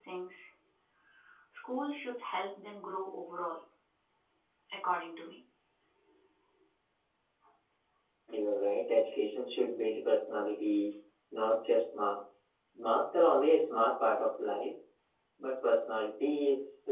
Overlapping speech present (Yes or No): No